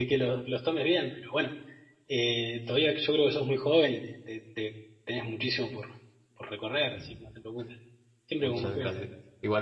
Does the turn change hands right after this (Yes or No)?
Yes